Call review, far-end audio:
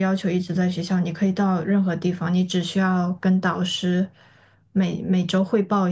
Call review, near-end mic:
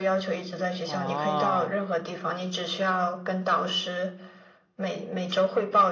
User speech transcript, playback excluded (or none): 啊，